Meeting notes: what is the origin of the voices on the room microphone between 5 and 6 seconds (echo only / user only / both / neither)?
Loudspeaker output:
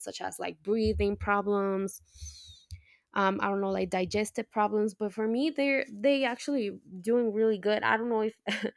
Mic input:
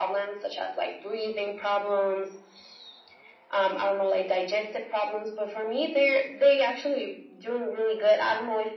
echo only